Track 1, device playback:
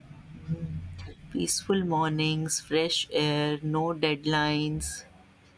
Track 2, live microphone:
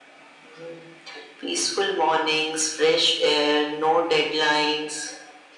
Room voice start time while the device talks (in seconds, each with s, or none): none